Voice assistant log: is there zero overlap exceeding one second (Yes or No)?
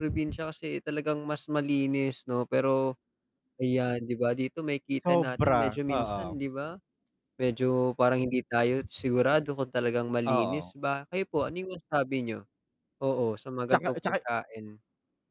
No